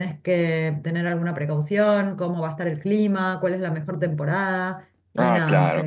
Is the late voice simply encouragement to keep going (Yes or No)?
No